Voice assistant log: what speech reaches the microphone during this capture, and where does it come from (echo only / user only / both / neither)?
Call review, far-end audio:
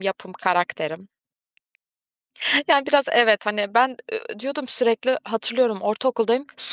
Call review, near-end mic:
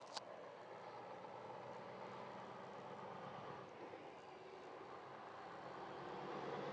neither